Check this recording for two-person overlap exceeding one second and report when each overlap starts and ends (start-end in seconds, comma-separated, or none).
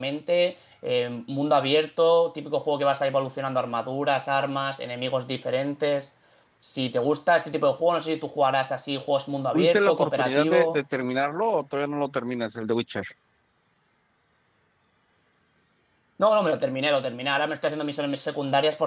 9.5-10.8